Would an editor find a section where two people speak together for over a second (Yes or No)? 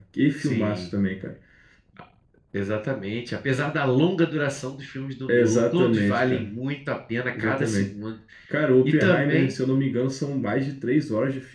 Yes